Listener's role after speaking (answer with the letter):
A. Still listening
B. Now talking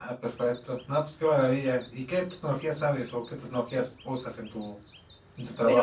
B